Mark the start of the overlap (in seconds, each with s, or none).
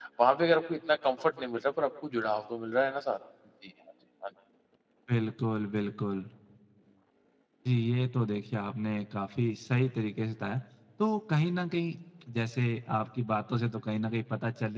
none